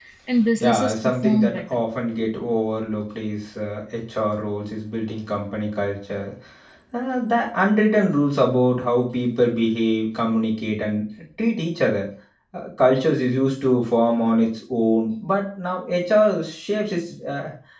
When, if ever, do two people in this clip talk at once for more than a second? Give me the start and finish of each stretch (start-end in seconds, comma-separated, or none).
0.6-1.8